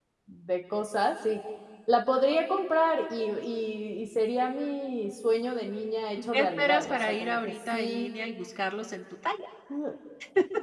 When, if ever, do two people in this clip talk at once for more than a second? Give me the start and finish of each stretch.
6.3-8.1

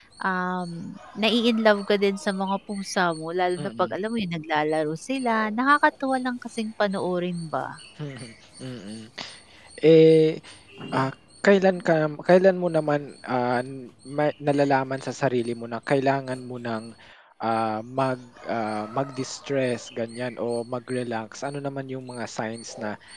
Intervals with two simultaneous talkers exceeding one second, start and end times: none

